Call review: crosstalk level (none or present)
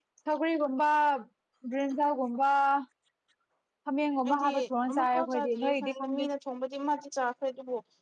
present